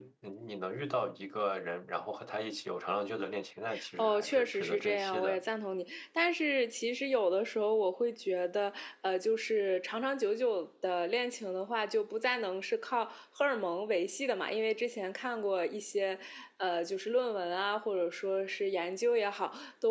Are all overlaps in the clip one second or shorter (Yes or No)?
No